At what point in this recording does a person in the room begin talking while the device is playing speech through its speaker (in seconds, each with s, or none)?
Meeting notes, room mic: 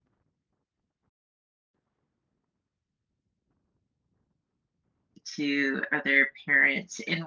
5.2 s